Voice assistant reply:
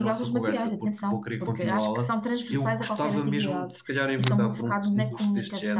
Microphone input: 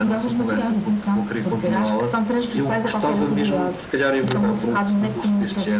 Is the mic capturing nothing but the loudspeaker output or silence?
Yes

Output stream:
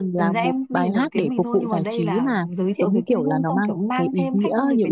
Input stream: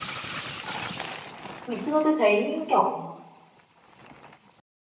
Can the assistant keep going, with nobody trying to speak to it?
No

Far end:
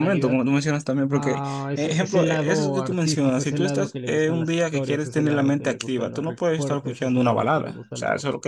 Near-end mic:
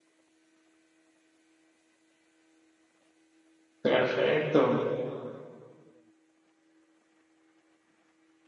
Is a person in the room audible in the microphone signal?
Yes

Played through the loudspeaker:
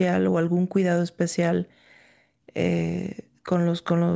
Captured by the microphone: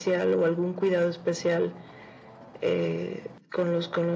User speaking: No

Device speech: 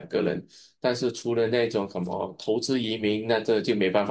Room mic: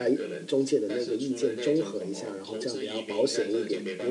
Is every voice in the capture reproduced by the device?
No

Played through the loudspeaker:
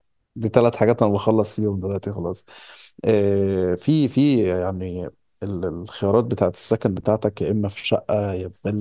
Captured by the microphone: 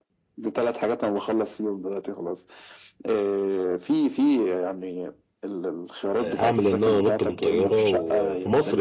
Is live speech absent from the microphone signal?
No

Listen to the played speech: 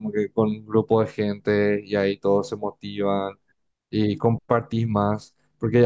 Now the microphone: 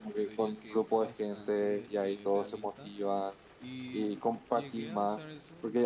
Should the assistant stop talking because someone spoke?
Yes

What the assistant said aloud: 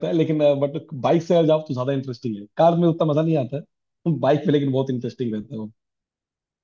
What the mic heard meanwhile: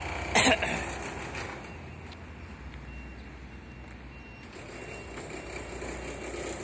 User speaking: No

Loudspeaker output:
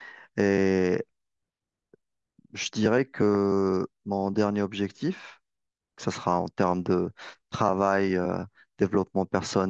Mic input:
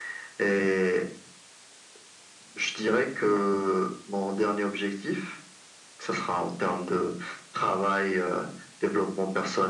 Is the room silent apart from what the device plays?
Yes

